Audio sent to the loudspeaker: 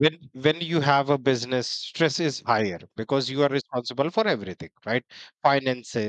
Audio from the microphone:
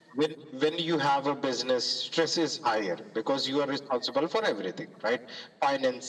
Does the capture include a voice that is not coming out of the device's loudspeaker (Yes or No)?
No